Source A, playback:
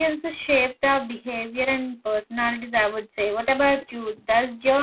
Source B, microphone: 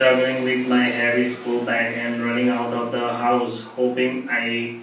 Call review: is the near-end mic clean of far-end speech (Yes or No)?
Yes